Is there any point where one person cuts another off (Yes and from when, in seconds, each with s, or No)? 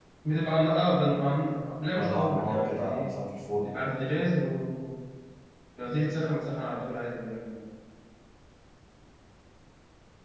Yes, from 1.9 s